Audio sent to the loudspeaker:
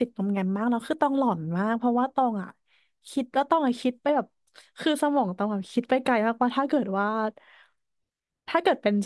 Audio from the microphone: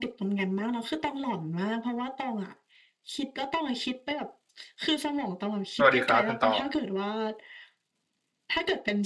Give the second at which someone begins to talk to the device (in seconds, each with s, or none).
5.8 s